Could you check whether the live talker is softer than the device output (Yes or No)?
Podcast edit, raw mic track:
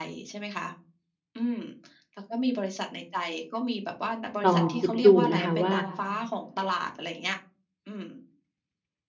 No